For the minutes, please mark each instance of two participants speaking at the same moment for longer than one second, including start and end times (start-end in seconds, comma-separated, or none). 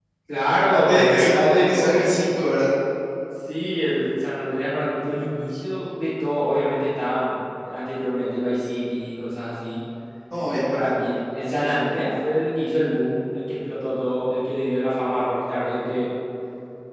0.7-2.0